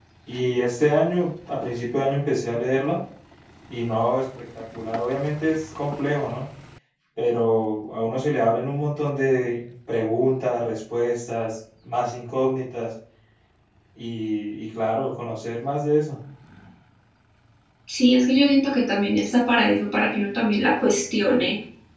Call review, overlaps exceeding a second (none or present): none